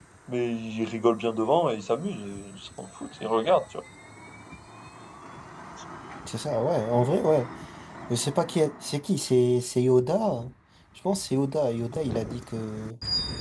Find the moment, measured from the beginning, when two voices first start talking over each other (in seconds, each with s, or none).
none